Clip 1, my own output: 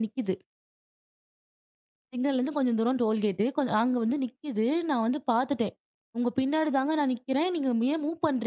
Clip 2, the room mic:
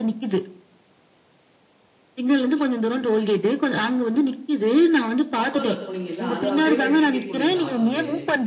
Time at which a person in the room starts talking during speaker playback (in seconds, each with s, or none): 5.4 s